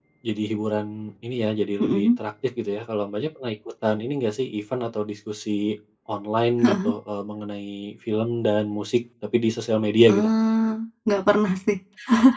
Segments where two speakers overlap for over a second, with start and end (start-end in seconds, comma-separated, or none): none